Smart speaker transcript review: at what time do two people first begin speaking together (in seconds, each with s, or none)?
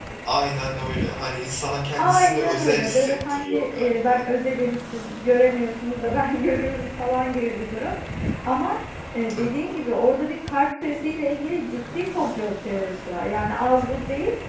2.0 s